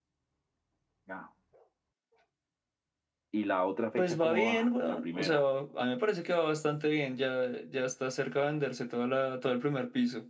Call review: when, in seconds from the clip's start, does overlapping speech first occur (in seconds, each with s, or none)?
4.0 s